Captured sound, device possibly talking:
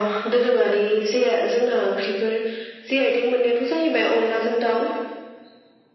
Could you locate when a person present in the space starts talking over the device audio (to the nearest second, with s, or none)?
none